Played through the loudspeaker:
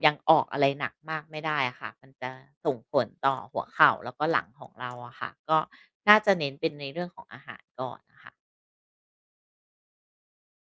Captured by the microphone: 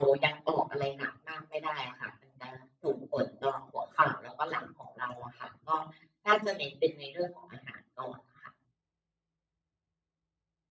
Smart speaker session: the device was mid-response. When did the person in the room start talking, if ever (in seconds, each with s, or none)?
none